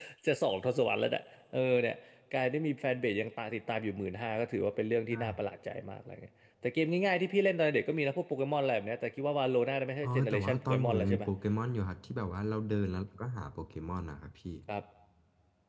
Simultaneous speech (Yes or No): Yes